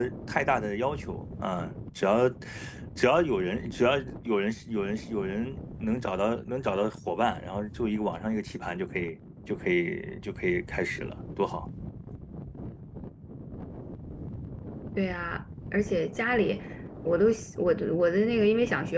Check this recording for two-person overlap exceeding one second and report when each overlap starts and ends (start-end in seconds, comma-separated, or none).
none